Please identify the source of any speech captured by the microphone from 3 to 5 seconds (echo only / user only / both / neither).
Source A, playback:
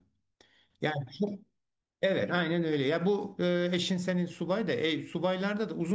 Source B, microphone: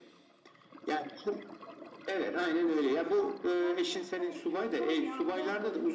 both